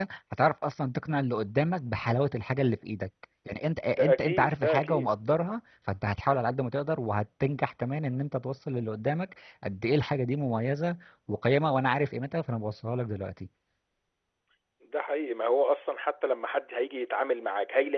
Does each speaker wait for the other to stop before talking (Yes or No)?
No